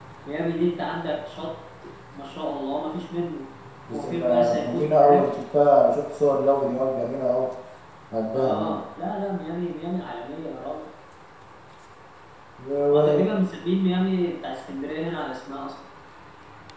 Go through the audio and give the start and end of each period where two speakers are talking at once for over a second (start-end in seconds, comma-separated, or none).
3.9-5.3